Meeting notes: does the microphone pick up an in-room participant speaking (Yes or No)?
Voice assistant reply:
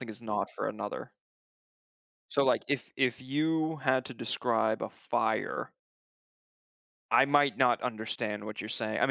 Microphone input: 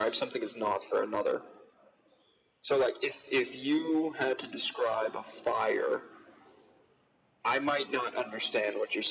No